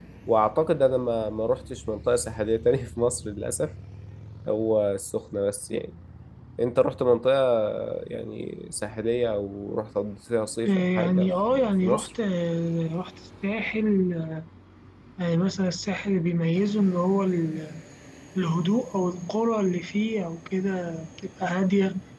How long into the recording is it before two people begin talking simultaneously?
10.6 s

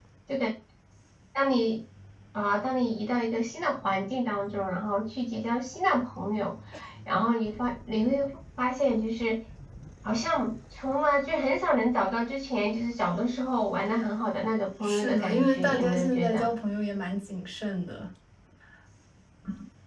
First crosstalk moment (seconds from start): 14.8 s

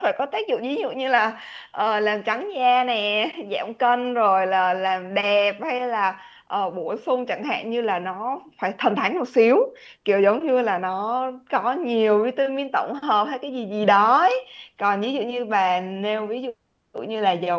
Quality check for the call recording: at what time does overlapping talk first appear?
none

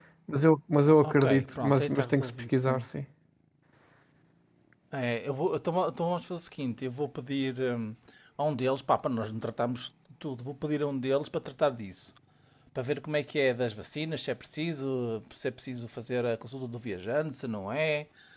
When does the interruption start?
1.0 s

